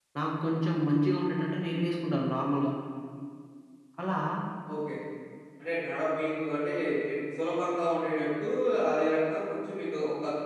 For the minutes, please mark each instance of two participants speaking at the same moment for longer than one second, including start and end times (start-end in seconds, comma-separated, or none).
none